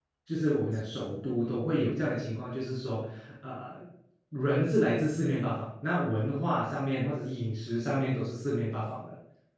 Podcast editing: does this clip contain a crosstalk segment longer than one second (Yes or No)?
No